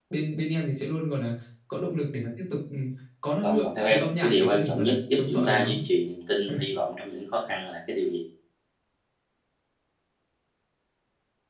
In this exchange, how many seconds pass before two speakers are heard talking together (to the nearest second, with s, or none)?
3 s